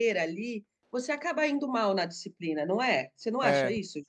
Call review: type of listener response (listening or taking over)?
taking over